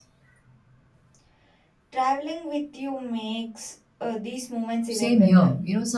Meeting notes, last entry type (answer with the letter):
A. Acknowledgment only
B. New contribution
B